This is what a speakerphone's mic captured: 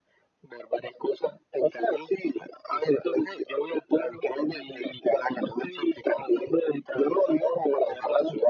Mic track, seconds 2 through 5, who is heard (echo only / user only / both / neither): echo only